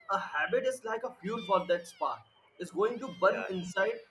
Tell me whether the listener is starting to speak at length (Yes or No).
No